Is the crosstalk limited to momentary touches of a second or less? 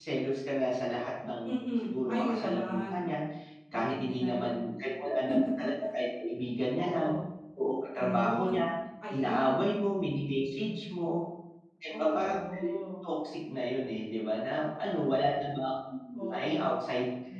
No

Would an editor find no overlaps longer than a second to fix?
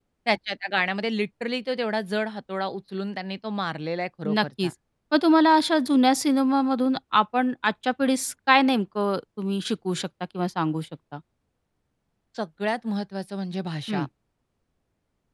Yes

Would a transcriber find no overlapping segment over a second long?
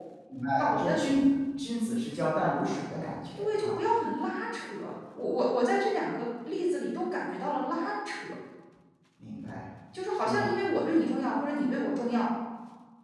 Yes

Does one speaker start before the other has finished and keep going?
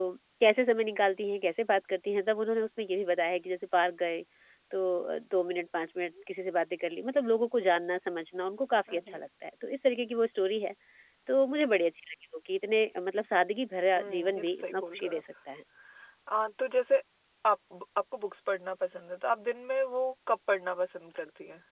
Yes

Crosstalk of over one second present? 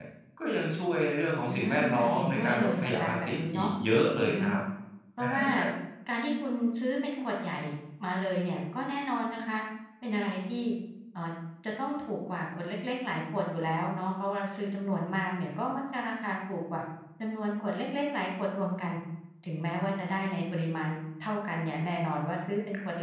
Yes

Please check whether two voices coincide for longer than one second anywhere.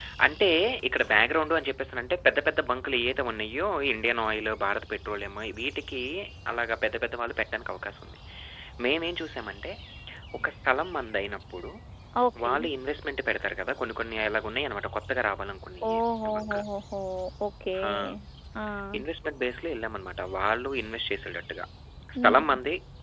No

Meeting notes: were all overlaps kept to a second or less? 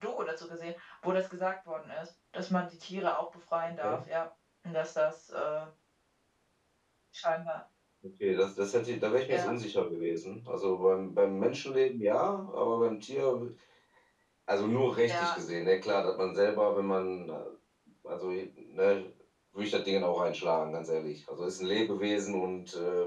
Yes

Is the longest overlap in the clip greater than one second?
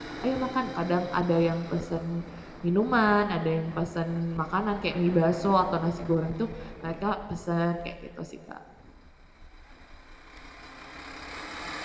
No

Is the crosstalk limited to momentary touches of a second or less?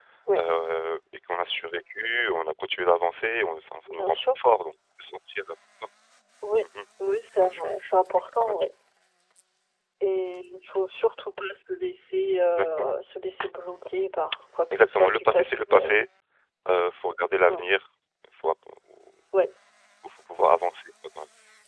No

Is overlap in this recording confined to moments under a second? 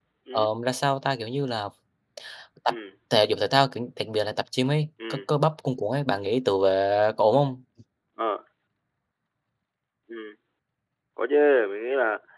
Yes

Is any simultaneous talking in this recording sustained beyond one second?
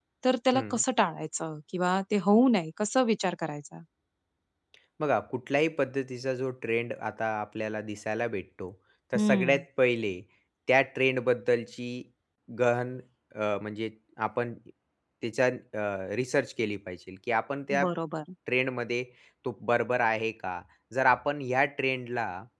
No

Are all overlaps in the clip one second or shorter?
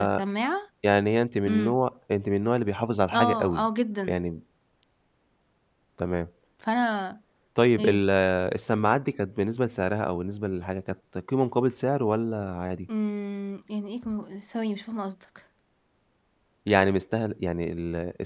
Yes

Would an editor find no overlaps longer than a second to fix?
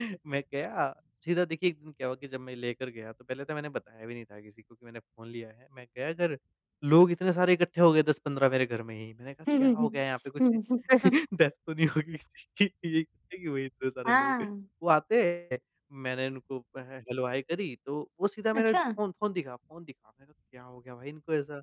Yes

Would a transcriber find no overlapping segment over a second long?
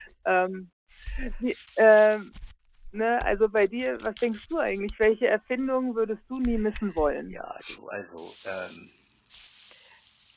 Yes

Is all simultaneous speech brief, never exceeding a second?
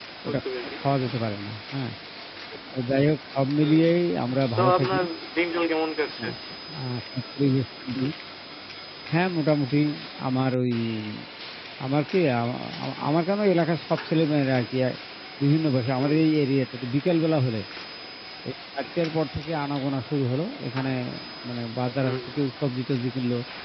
Yes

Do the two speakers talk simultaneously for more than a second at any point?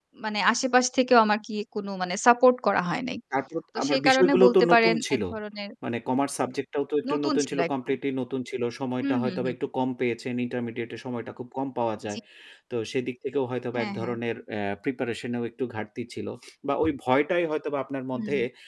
Yes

